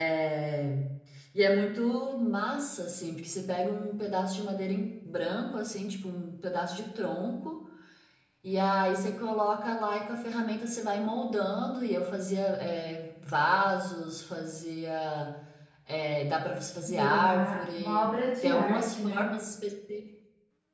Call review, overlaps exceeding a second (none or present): present